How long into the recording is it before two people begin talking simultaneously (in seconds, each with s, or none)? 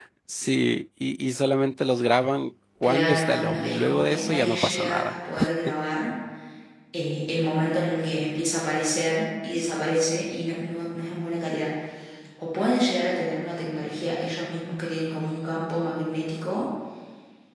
2.8 s